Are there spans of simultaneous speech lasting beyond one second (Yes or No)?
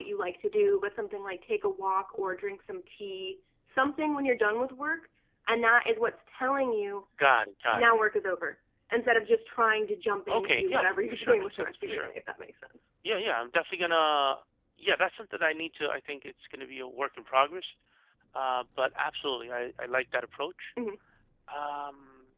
Yes